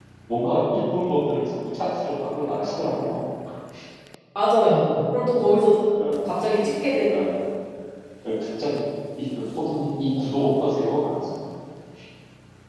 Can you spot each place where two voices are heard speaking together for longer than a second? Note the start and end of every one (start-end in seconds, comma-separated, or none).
none